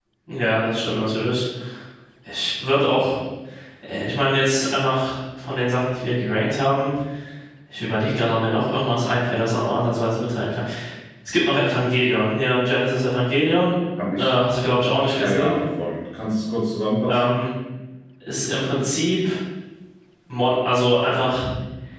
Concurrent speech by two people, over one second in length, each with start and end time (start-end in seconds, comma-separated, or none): none